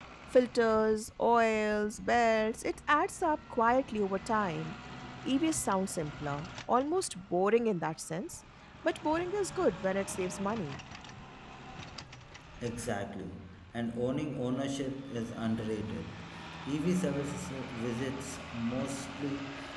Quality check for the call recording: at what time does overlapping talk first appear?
none

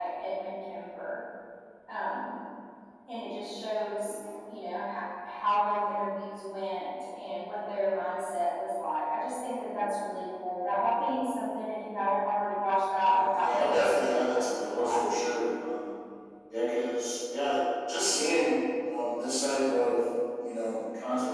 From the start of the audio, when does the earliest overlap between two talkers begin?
13.1 s

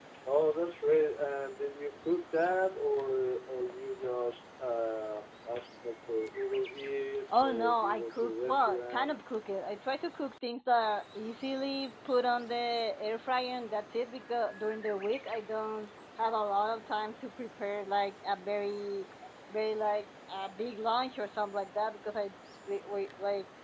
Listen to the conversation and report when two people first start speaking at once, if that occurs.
7.3 s

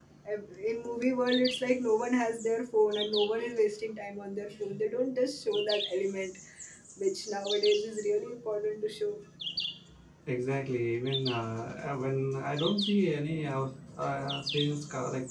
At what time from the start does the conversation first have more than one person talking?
none

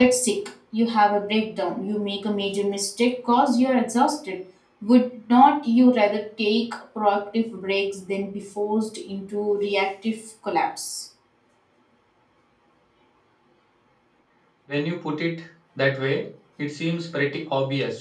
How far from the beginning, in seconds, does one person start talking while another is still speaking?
none

